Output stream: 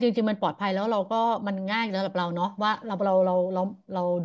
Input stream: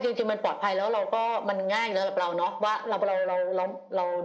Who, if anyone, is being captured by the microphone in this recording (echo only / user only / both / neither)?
echo only